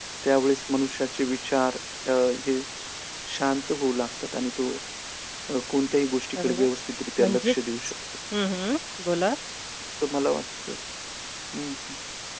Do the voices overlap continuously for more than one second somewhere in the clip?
No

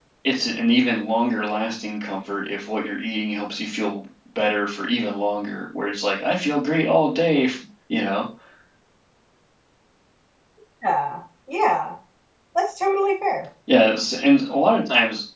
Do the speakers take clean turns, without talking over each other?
Yes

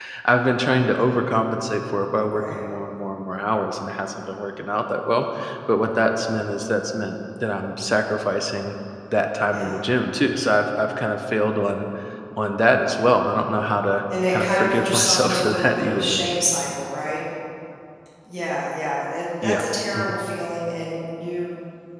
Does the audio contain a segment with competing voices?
Yes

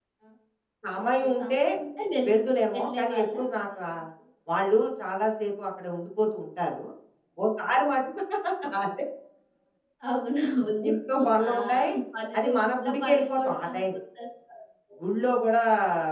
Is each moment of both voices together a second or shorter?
No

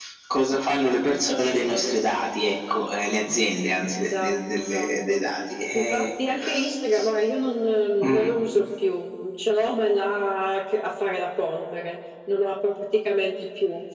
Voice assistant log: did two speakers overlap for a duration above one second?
Yes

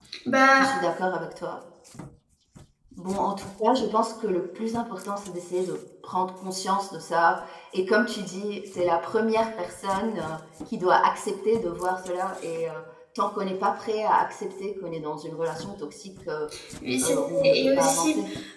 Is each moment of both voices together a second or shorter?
No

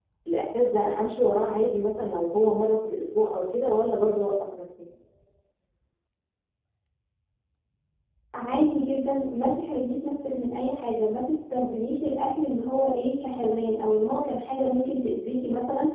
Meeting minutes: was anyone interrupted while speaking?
No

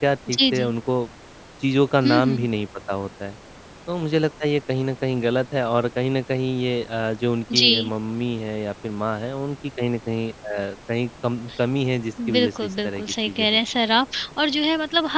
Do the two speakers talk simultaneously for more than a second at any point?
Yes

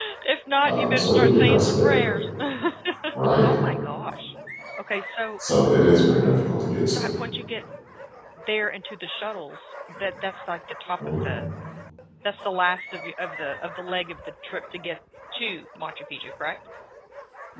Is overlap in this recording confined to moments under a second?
No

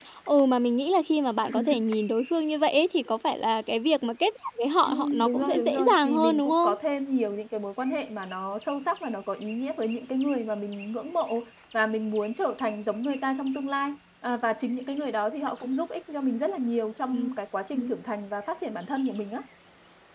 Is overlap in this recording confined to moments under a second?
No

